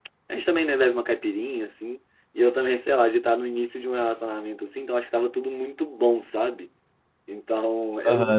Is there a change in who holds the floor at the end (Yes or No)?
Yes